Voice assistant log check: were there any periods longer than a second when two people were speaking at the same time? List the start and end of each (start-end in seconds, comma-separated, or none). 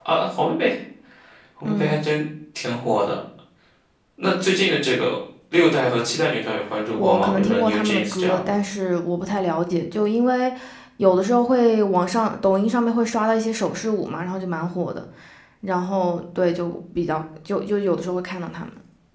7.0-8.5